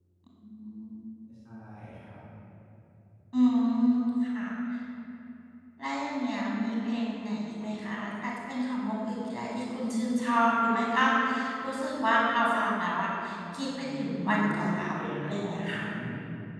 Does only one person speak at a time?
No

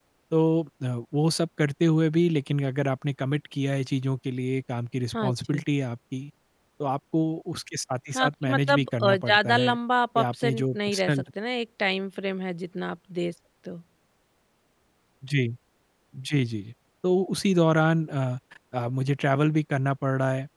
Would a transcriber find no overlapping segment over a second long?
No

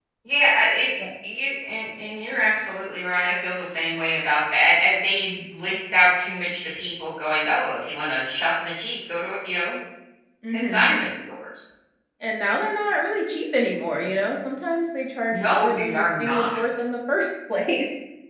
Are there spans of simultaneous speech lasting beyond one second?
Yes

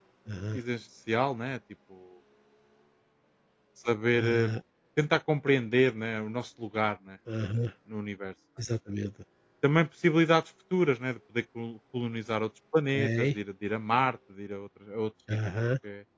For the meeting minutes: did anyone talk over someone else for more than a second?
No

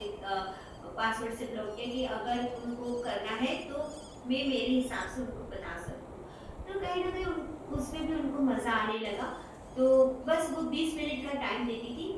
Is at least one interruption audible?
No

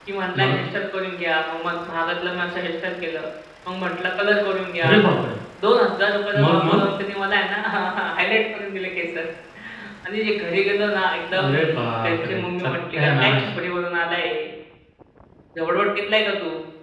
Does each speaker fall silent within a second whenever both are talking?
No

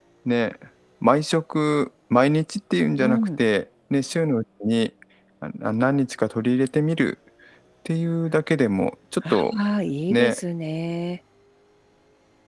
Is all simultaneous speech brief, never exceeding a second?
Yes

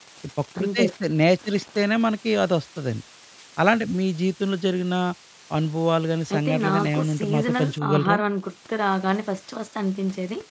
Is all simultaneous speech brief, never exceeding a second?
No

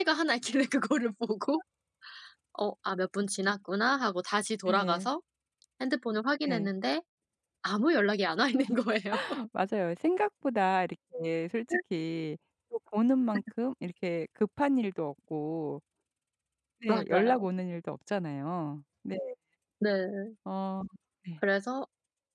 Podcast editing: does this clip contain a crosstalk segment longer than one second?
No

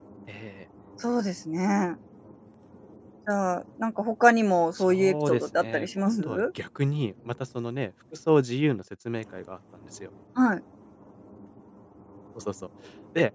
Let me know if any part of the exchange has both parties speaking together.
Yes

